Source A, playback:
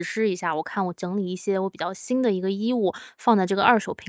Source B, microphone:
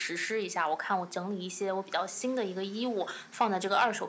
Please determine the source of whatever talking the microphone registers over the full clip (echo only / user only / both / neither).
echo only